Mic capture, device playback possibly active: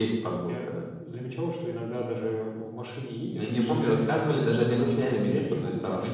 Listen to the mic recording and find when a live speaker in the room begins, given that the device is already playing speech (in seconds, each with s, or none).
none